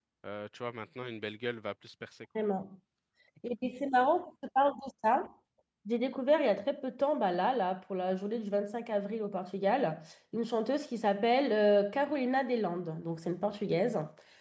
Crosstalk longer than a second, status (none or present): none